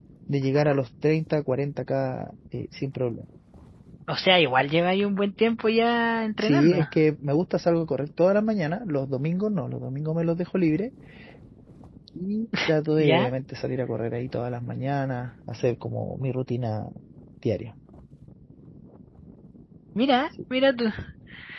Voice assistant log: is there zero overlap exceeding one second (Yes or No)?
Yes